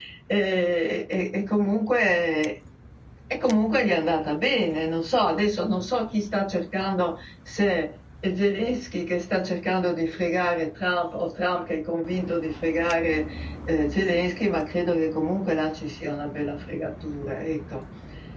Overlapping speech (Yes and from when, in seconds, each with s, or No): No